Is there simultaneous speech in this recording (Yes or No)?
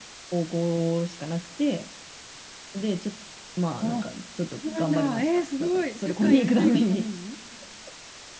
Yes